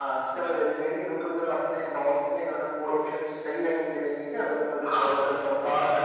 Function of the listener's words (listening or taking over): taking over